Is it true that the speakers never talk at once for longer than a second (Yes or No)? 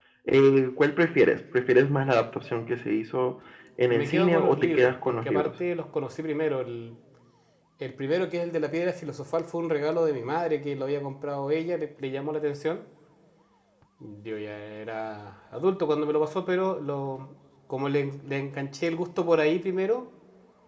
No